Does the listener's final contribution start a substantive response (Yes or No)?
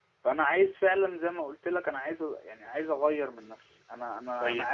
Yes